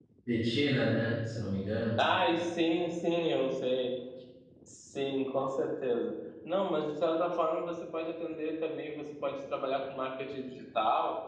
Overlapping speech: No

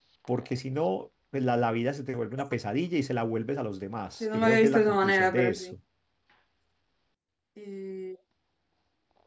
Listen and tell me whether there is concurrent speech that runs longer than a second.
Yes, from 4.2 s

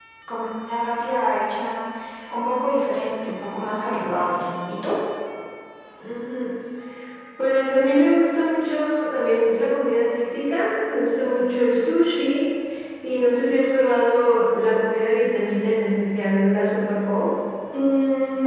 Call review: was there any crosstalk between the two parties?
No

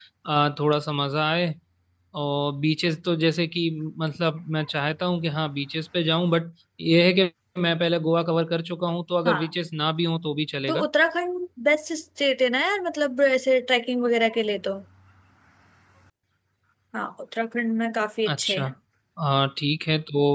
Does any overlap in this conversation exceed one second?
No

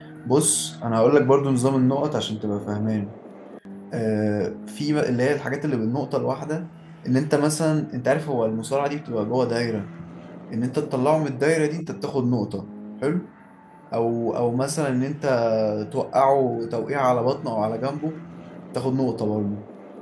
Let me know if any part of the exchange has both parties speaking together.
No

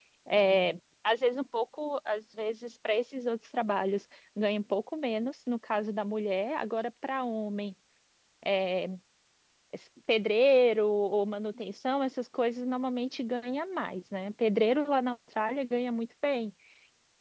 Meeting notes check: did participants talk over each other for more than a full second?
No

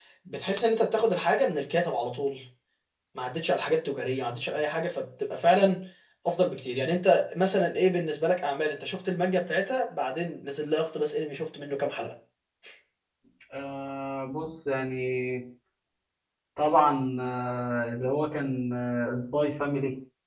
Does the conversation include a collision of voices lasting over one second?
No

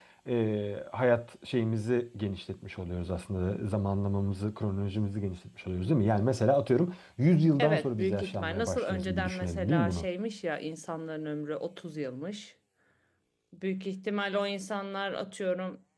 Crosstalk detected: Yes, from 7.6 s

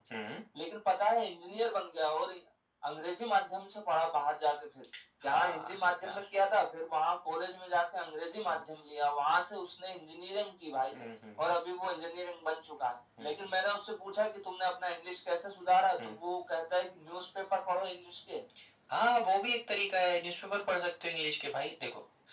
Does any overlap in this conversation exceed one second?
No

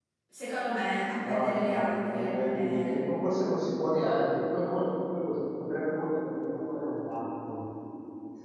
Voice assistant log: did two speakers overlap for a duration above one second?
Yes, from 1.2 s

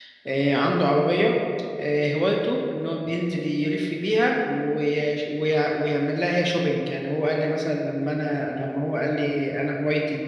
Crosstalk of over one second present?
No

